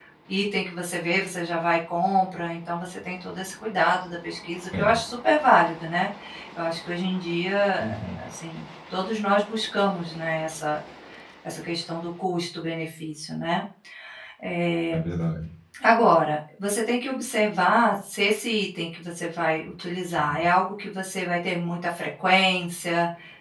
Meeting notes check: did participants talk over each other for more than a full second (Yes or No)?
No